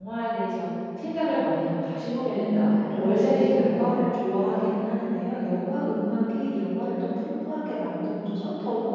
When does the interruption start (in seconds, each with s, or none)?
2.3 s